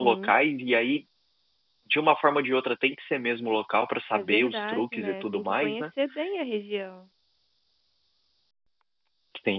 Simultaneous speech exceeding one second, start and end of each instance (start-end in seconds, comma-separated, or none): 4.1-5.8